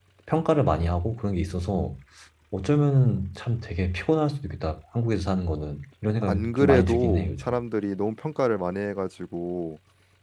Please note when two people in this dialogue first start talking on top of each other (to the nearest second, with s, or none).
6 s